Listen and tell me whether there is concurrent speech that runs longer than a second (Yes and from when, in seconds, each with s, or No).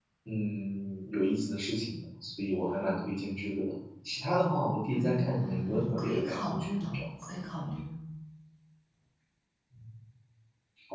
Yes, from 4.9 s